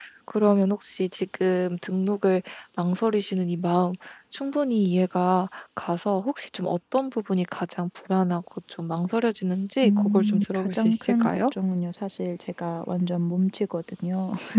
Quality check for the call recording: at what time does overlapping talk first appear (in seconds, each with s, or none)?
9.8 s